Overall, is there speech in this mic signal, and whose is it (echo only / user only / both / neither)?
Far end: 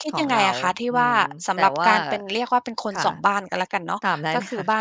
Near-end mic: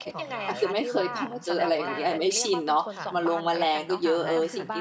both